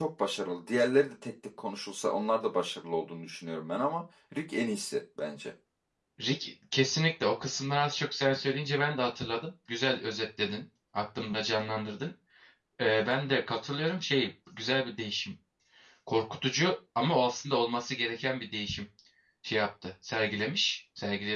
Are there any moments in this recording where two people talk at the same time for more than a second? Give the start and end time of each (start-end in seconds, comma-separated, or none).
none